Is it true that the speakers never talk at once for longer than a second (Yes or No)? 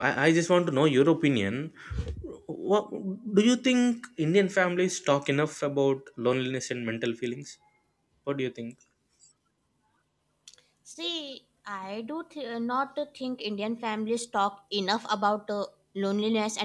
Yes